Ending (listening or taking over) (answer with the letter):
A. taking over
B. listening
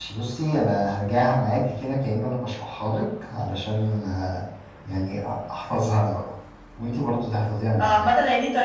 A